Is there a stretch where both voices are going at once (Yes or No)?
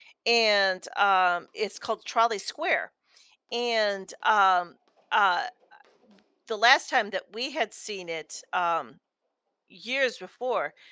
No